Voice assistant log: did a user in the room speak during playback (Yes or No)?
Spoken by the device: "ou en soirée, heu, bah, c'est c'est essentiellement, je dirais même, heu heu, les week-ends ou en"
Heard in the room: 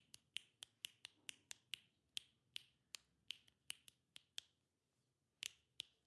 No